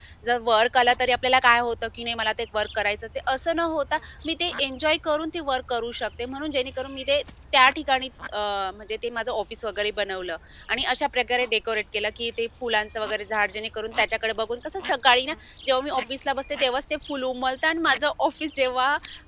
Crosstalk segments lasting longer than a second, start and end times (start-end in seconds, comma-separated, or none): none